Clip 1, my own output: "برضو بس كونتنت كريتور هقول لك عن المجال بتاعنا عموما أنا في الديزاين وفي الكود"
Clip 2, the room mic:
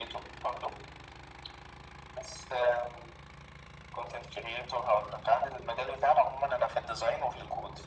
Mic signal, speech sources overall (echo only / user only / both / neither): echo only